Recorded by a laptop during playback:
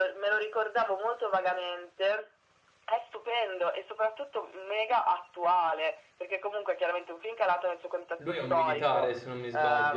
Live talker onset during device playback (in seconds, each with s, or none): 8.2 s